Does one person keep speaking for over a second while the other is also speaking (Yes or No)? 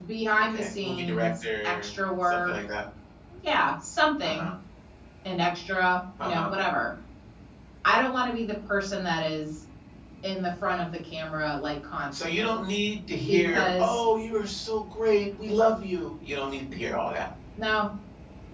Yes